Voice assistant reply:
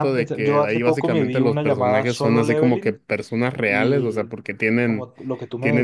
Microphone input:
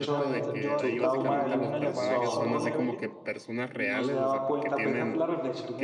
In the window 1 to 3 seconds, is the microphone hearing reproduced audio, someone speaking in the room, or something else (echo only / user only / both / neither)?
both